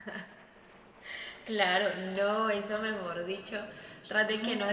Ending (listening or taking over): listening